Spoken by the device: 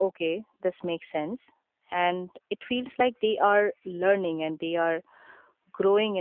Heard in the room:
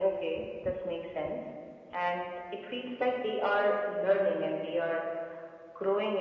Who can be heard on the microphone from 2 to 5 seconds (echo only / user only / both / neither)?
echo only